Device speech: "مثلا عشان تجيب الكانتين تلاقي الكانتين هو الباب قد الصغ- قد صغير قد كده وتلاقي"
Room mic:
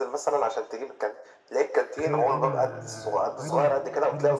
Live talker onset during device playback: 2 s

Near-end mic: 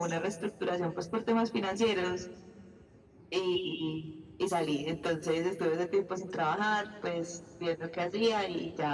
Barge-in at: none

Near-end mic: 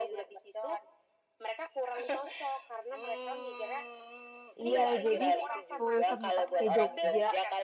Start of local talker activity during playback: 5 s

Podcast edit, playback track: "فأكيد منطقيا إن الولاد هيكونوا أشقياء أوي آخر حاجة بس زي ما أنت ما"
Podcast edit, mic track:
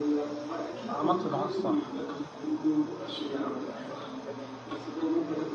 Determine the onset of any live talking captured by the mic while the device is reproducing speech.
1 s

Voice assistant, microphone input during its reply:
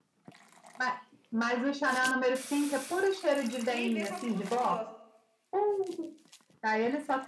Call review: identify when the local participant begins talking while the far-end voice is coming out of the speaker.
4 s

